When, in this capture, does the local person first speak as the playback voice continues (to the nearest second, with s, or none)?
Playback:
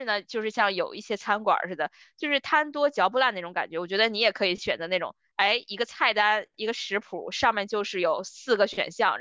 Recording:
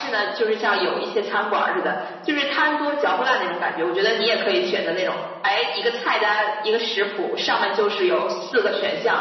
none